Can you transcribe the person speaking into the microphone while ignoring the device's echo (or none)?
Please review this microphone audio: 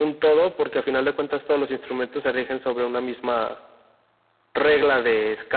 none